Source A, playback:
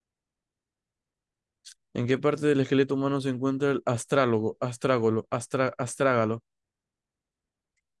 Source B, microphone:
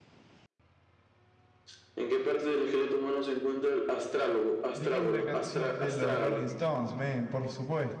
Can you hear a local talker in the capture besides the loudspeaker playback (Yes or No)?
Yes